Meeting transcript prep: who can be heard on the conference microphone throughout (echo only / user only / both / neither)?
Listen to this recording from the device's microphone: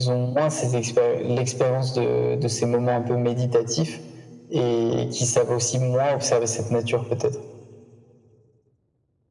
echo only